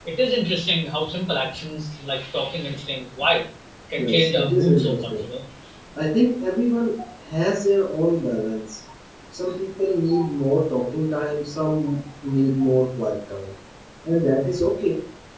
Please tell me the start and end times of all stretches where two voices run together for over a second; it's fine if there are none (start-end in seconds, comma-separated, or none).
4.0-5.2